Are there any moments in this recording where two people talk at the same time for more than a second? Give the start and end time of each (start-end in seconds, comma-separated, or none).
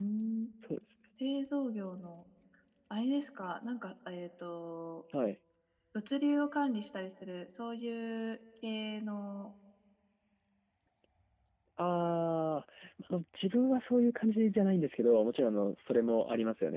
none